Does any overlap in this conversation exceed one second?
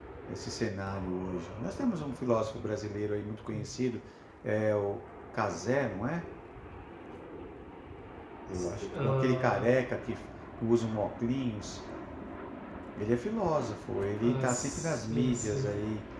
Yes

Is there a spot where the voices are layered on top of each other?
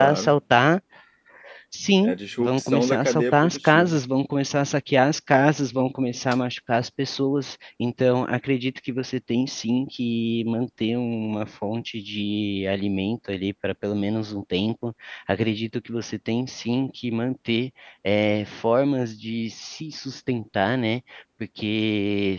Yes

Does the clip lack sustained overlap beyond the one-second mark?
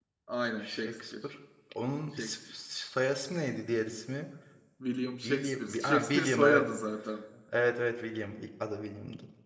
No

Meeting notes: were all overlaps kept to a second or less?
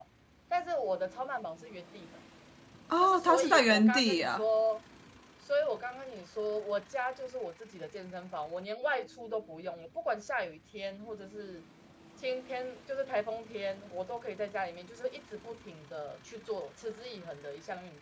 No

